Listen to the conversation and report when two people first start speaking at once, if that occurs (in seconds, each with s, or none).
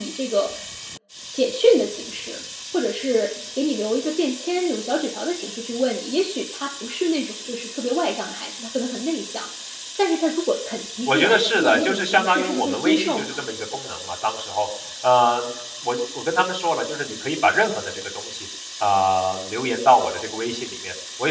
11.1 s